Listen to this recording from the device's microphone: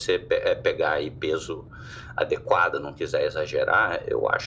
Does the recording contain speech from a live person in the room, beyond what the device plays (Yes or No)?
No